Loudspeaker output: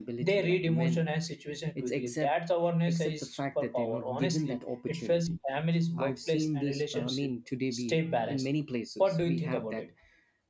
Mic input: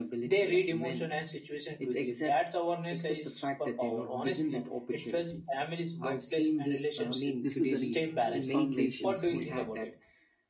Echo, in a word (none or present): present